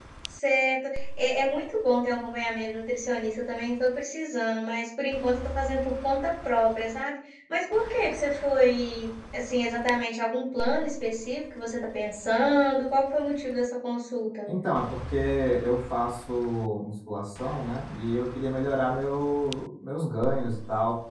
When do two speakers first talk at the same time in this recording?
none

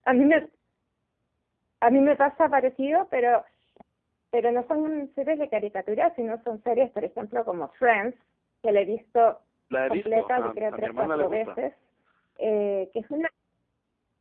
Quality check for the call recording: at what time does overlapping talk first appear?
9.9 s

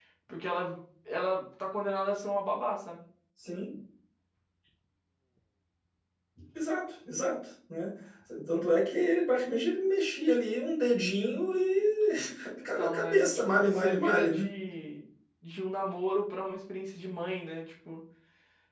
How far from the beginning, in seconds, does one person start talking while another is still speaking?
12.8 s

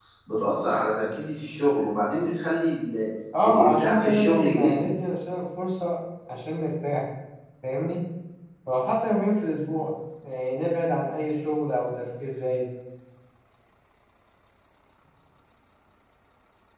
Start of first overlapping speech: 3.4 s

